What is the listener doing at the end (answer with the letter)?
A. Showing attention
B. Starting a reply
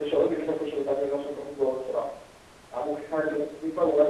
A